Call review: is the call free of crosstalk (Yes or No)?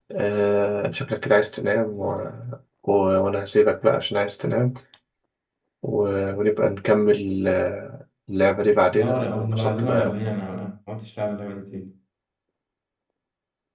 No